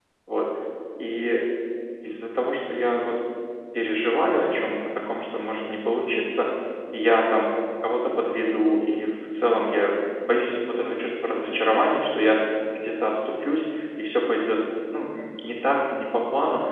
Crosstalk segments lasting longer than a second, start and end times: none

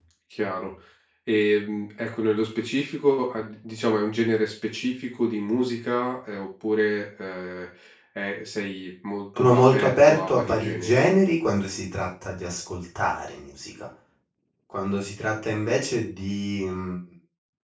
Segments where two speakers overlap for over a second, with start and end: 9.4-11.0

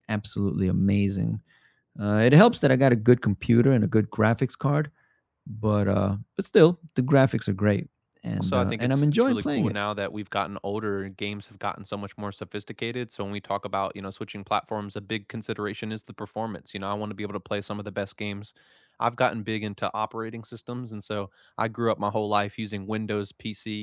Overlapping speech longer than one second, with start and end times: 8.4-9.8

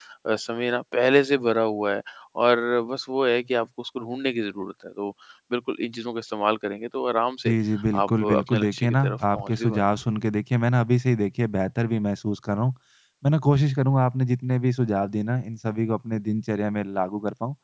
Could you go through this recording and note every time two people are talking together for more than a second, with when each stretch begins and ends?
7.9-9.8

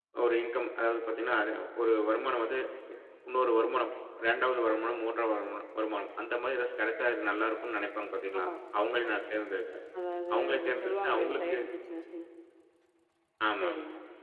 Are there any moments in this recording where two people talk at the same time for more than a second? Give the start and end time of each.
10.3-11.6

